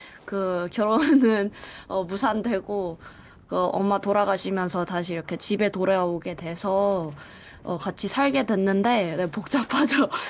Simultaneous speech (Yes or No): No